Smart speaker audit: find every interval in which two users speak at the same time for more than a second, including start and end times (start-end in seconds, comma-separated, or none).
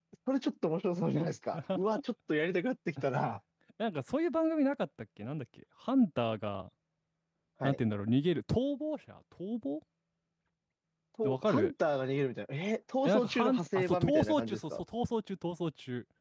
13.1-14.8